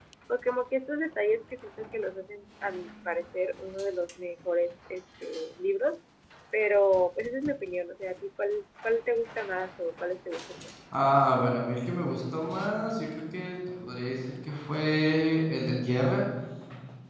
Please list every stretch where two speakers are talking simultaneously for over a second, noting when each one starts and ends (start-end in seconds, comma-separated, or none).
none